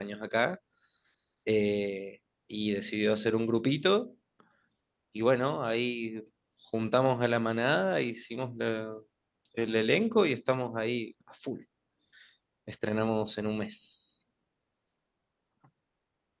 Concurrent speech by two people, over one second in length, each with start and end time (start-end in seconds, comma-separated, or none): none